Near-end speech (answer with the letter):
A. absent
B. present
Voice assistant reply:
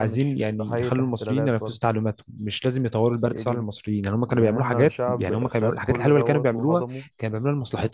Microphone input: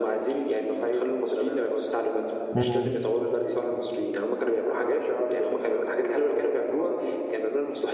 B